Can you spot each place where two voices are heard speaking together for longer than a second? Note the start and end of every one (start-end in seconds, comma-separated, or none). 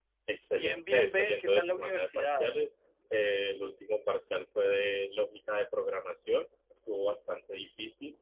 0.5-2.5